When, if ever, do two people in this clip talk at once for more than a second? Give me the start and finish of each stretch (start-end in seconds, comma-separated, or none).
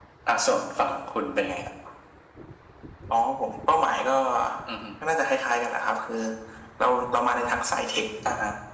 none